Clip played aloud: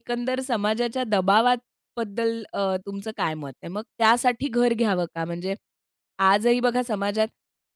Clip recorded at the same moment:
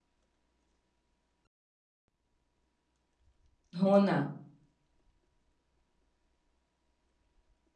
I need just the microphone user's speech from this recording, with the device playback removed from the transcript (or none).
हो ना.